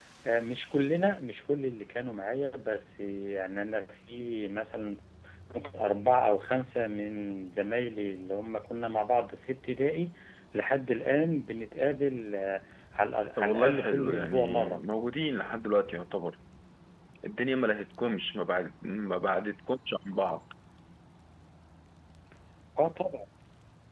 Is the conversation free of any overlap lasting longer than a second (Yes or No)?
No